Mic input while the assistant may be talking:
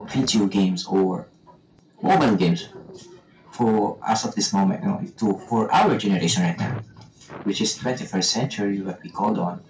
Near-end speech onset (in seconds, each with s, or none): none